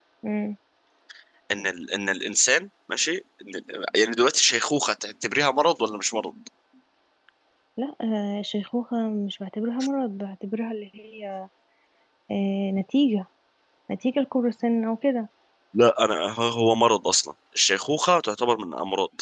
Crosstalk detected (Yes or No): No